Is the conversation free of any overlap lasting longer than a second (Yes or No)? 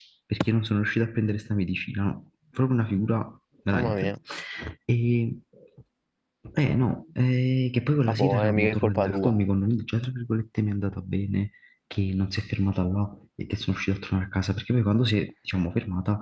No